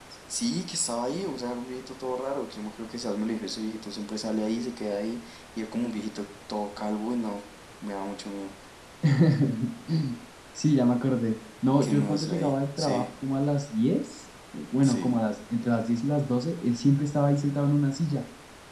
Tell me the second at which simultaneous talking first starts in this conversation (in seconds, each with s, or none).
11.8 s